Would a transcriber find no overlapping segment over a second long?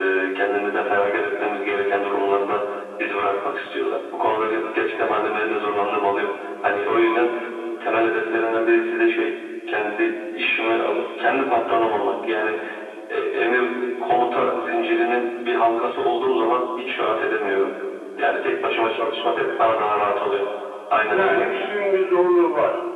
Yes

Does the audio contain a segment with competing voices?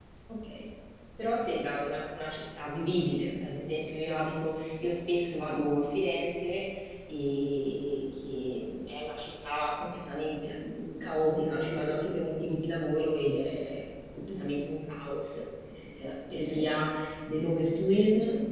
No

